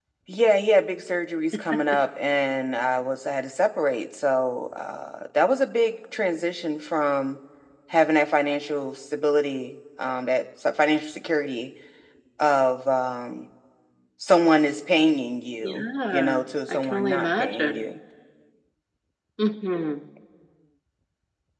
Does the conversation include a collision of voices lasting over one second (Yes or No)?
Yes